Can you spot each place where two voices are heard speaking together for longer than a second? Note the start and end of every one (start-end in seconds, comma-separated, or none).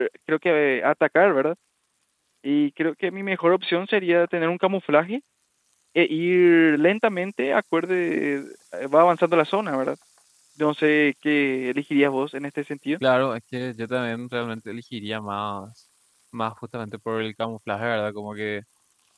none